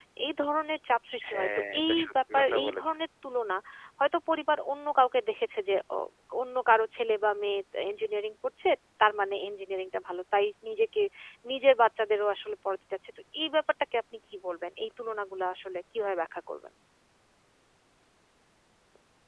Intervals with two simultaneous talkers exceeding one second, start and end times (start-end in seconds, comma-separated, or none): 1.3-2.9